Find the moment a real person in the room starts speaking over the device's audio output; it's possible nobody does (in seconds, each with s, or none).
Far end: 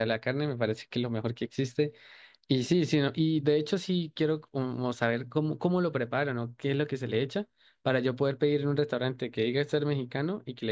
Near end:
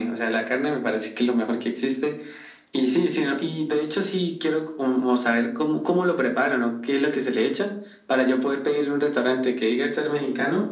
none